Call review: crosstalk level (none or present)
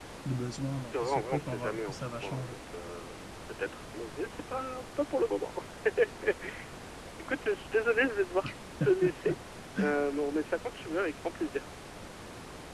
present